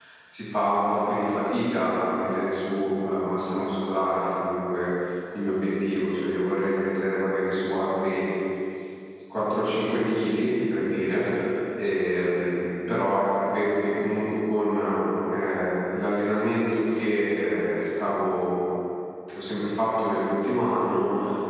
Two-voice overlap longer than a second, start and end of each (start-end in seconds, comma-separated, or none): none